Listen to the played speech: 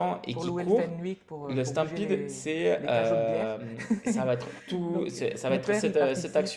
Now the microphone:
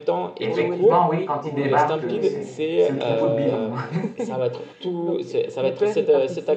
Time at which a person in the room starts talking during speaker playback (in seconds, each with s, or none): 0.4 s